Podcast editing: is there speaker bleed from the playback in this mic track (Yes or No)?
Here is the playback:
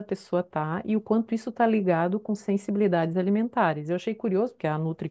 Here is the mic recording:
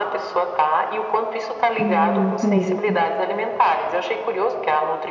Yes